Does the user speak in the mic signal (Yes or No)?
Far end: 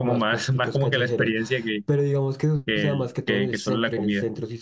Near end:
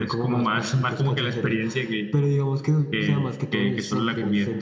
No